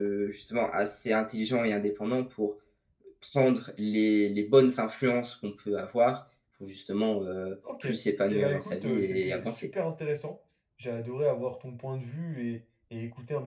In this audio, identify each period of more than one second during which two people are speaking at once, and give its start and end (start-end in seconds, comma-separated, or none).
8.3-9.7